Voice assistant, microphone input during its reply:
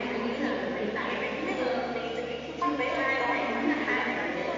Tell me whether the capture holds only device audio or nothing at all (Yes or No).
No